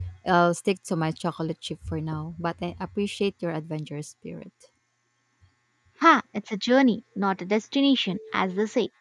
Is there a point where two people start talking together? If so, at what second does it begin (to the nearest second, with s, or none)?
none